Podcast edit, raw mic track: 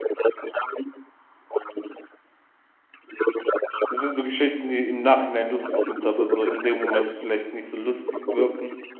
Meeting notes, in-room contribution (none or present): present